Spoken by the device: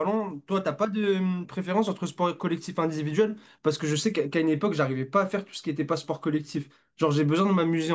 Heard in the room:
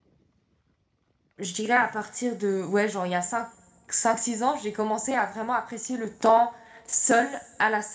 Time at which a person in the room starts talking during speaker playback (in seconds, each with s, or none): 1.4 s